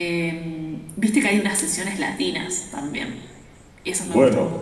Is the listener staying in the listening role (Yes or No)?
No